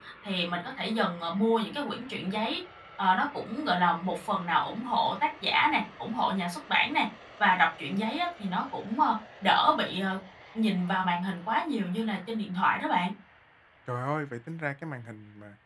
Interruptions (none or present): none